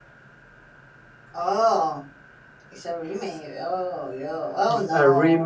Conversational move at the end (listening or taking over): taking over